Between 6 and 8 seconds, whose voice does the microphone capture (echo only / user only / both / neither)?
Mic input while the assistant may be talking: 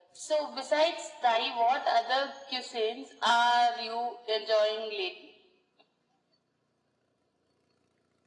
neither